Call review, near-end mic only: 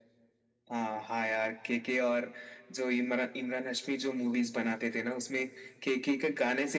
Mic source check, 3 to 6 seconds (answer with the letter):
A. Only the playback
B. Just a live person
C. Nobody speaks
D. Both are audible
A